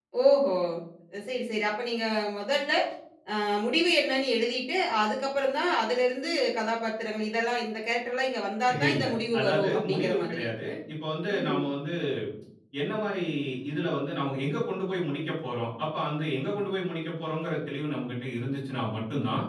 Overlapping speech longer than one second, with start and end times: 8.9-10.4

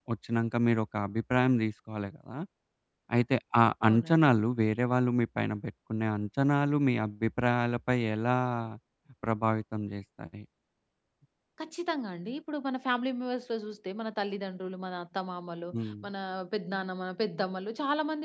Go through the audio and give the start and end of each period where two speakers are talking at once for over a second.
none

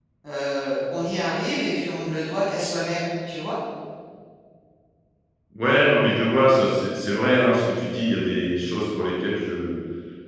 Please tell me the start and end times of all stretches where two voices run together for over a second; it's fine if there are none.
none

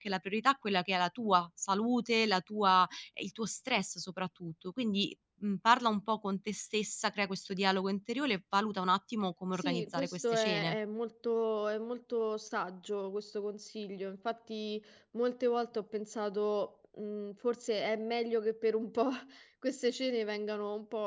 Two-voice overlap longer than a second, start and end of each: 9.5-10.8

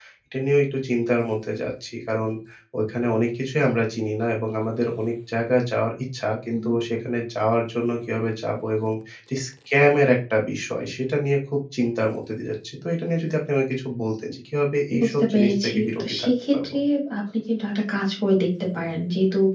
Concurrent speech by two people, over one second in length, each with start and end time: 15.0-16.8

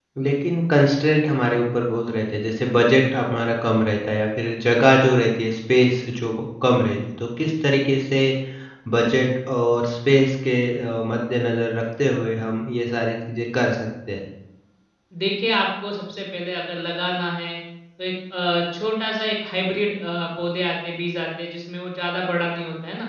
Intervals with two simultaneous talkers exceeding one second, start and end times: none

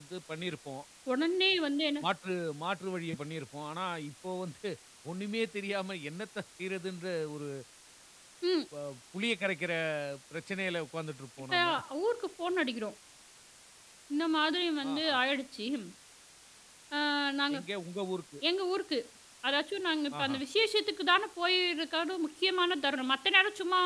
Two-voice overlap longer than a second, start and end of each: none

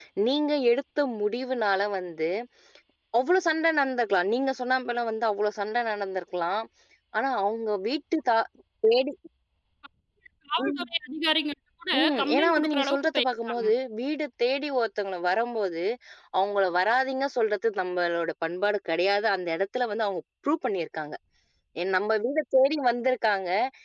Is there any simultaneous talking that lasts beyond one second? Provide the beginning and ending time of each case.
12.0-13.7

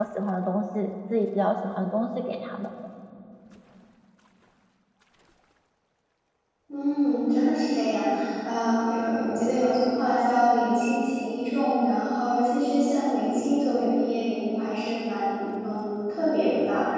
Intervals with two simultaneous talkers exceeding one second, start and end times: none

